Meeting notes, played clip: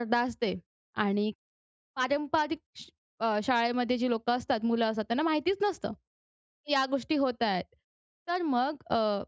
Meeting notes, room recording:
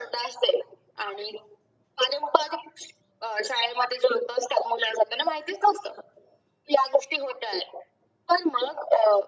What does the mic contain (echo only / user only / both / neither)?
echo only